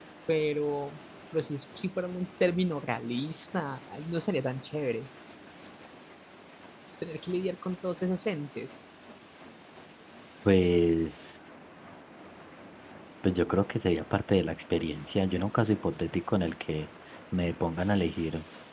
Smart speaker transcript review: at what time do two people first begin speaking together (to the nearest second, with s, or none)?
none